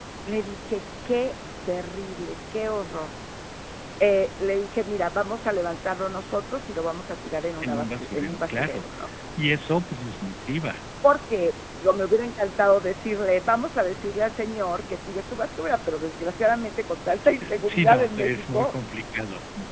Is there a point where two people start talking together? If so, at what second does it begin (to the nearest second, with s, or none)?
8 s